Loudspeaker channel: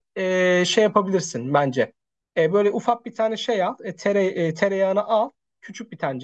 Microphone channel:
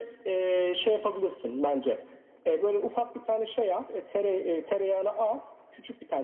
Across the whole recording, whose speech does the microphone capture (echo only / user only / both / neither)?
echo only